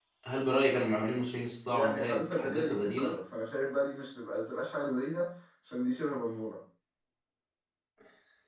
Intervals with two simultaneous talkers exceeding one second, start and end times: 1.7-3.2

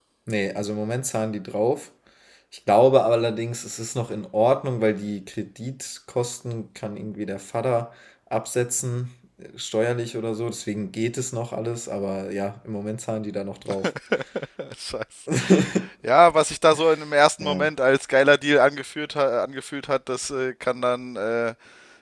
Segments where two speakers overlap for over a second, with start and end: none

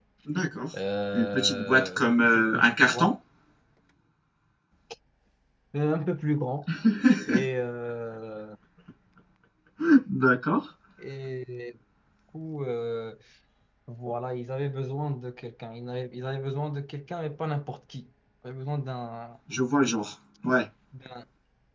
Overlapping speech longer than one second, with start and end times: 1.1-3.1

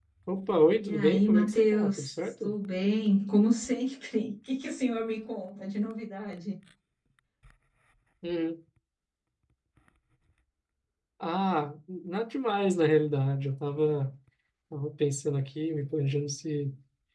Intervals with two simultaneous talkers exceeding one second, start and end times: 0.8-2.5

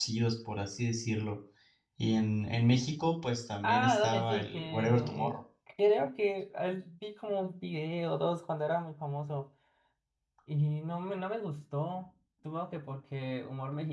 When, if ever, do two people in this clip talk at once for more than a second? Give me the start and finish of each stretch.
3.6-5.4

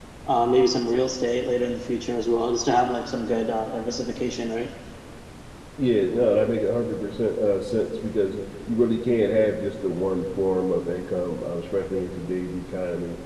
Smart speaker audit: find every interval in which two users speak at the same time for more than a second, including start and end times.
none

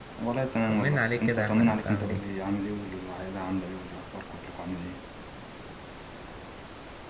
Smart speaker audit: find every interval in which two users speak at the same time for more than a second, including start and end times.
0.7-2.2

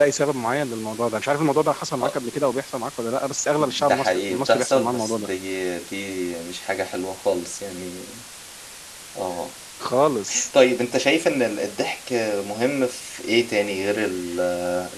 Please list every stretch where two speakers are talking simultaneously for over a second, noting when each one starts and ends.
3.6-5.3

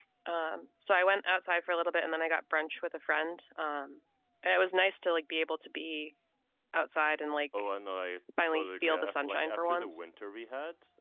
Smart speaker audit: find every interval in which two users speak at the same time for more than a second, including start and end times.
8.5-10.0

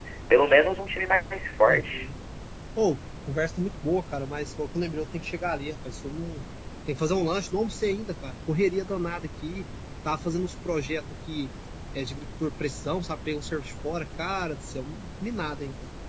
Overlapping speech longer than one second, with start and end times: none

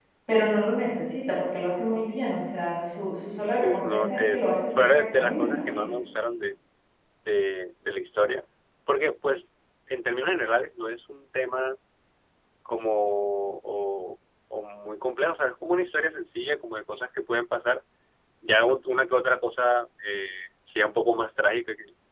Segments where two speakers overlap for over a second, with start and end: 3.6-5.8

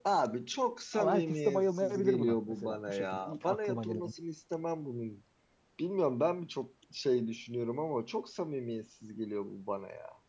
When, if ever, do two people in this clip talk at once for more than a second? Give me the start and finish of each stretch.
0.9-4.1

